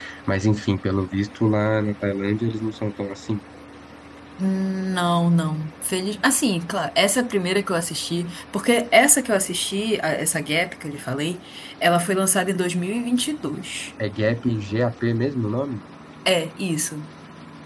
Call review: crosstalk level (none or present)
none